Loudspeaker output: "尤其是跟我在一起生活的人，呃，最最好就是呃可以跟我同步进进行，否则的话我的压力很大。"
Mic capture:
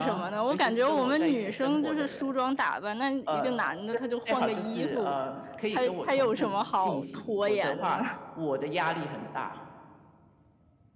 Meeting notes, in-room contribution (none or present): present